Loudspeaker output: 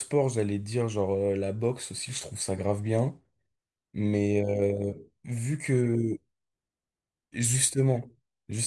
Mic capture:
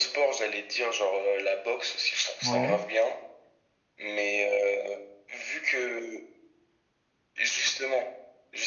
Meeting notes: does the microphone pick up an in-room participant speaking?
Yes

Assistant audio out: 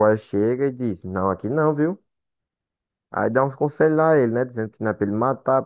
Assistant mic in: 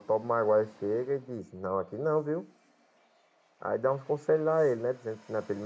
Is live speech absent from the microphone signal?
Yes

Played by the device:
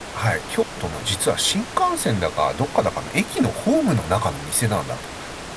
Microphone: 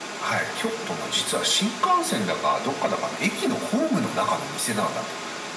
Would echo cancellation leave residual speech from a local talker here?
No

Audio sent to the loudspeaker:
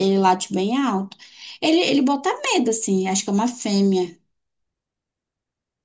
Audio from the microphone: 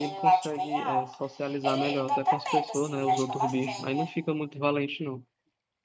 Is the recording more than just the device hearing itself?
Yes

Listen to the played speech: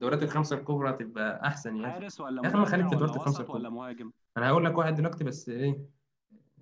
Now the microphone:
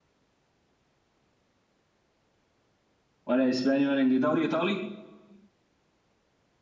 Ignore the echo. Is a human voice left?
Yes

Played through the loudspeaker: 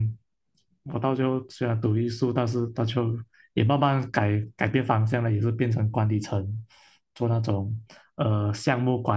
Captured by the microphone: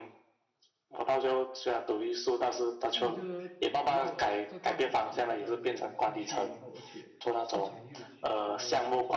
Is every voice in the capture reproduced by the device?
No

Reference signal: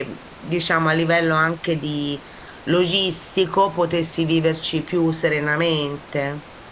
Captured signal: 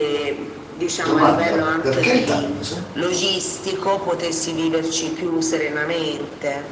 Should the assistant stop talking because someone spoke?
Yes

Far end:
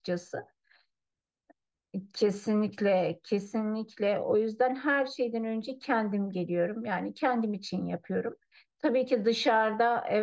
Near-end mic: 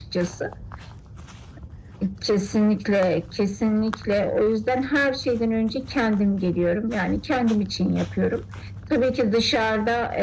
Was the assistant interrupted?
No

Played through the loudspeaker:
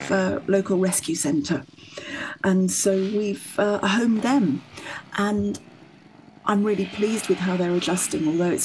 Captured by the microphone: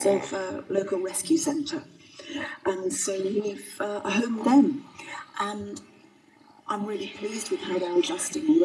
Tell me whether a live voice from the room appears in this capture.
No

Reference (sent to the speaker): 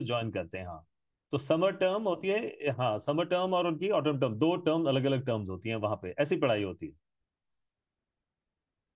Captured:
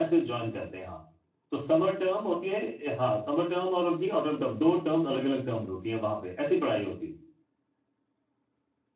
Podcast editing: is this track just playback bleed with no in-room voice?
Yes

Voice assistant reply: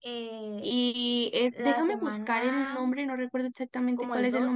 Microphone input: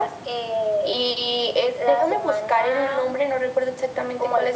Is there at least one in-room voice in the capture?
No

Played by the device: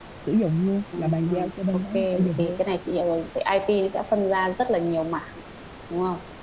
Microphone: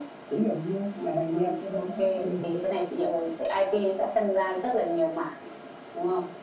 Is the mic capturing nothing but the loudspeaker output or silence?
Yes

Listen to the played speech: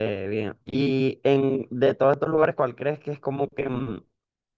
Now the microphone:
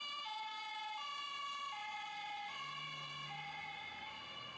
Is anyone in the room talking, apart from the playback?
No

